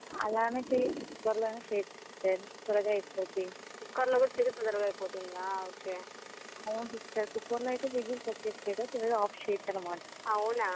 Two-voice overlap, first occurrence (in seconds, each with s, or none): none